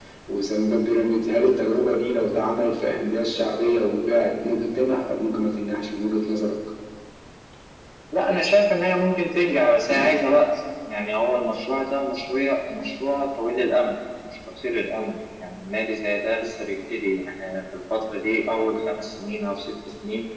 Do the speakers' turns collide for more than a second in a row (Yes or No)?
No